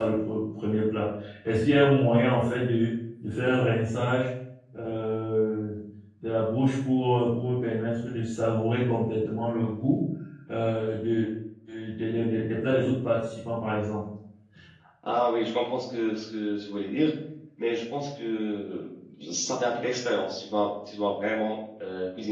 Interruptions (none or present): none